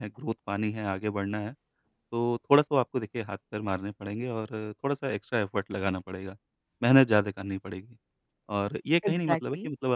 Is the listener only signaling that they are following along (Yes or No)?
Yes